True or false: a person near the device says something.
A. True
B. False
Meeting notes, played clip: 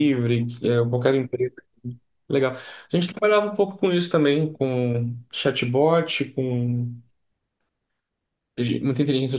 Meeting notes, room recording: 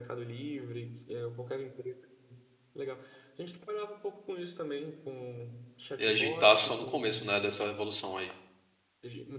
A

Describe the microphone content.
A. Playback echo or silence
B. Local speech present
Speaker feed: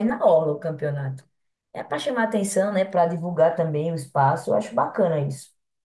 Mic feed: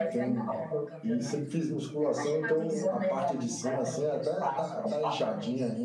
B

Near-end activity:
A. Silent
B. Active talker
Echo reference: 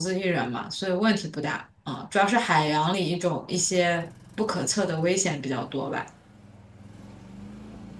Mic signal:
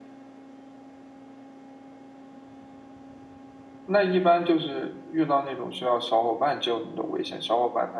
B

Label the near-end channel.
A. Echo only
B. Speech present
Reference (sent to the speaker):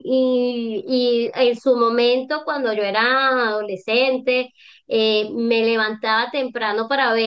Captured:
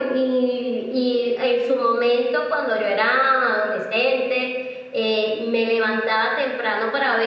A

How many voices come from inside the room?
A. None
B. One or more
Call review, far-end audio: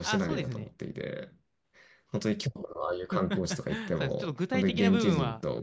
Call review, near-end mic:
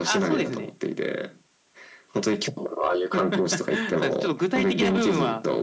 A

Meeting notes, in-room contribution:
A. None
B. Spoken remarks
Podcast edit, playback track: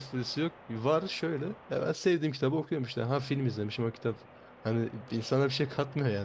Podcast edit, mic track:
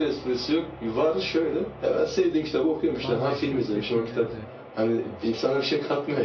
B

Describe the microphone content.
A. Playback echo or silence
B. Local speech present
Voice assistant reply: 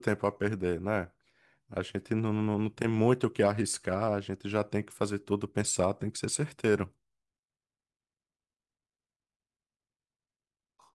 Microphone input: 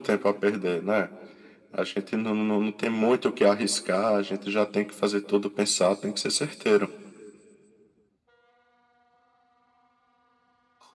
A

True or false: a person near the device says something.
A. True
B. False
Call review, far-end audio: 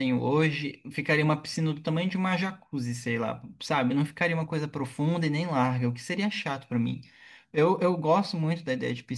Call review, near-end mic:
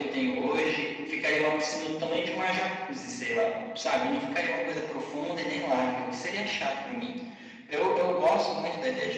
B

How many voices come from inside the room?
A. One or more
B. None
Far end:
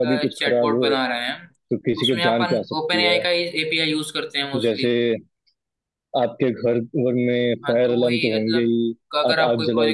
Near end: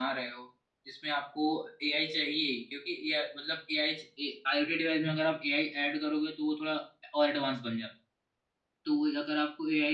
A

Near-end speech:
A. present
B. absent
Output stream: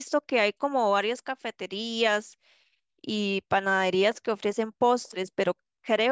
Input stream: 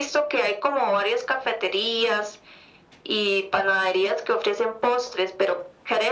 B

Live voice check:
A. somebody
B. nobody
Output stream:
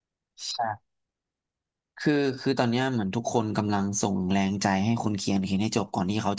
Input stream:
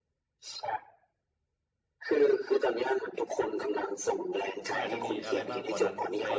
A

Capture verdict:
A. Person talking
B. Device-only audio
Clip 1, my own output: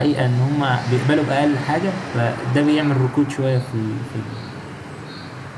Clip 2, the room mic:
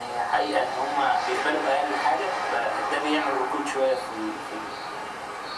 B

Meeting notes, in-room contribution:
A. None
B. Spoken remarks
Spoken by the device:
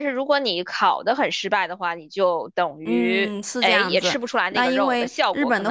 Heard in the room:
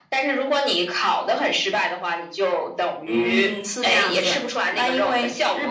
A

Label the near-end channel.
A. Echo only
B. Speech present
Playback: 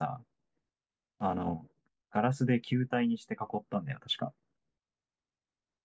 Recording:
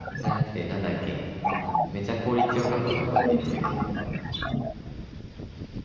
B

